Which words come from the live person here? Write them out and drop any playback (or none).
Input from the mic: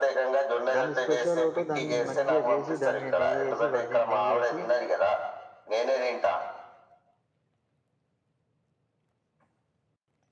దాంది స్పెషల్ ఓటు దానిక్ మంచిగ జేసి దాన్ మీద్ నెయేసి వర్జన్ నెయ్యేసి